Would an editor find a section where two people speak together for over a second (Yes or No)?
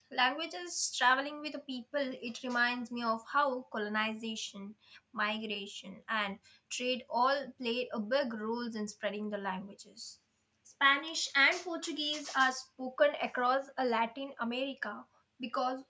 No